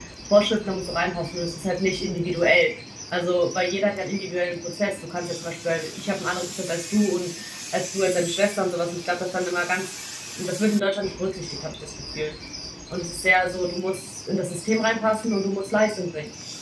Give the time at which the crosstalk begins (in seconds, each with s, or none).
none